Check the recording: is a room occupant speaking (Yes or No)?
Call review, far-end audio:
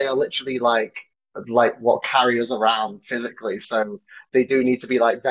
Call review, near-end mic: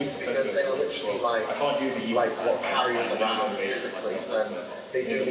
Yes